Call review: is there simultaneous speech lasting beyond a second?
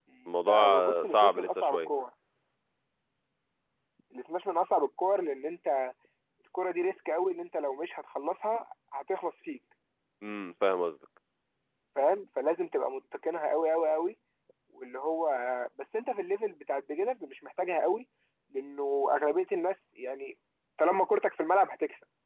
Yes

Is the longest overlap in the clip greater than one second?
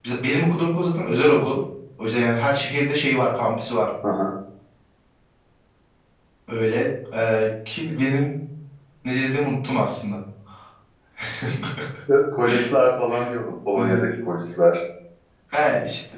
No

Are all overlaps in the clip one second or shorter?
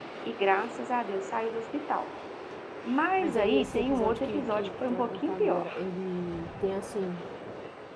No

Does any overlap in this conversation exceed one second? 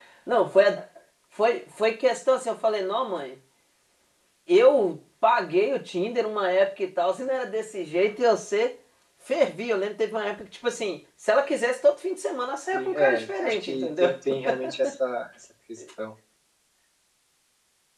Yes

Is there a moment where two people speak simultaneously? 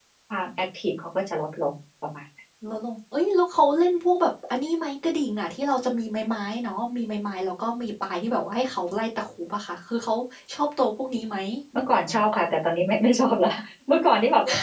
No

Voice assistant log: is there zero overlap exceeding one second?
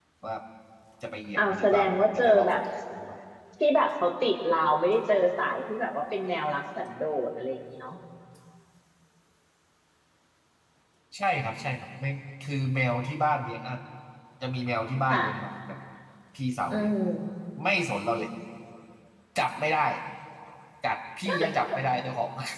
No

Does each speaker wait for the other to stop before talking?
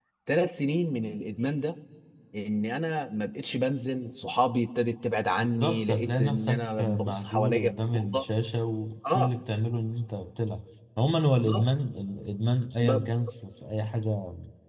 No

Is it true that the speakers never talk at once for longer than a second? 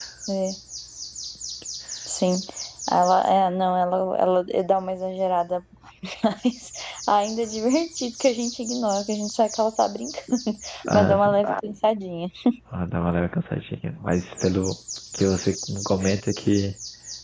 Yes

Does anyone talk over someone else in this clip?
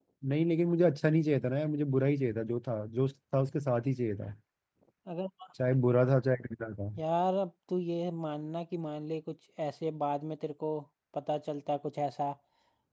No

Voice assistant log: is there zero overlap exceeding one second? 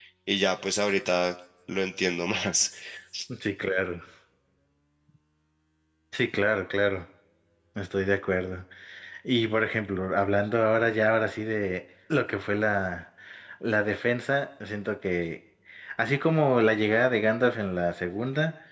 Yes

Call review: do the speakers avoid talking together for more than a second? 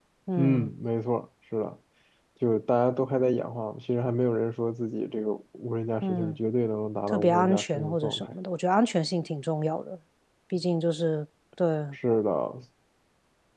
No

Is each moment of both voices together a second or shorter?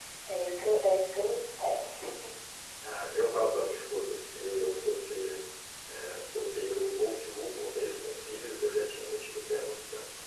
Yes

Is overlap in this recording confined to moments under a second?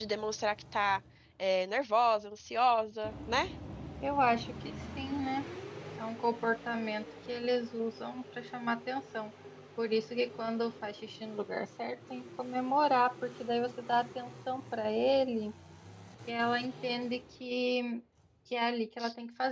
Yes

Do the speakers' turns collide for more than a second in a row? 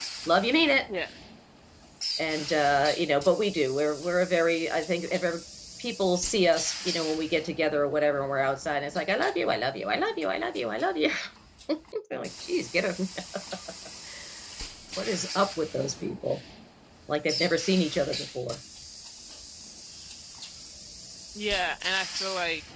No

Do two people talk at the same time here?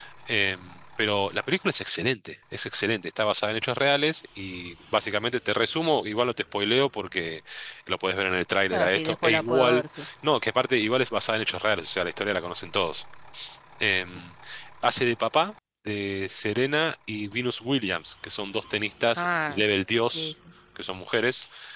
Yes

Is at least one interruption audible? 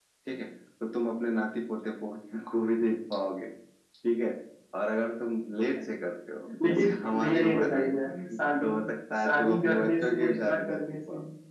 Yes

